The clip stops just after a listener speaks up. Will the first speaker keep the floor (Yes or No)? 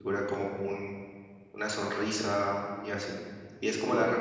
Yes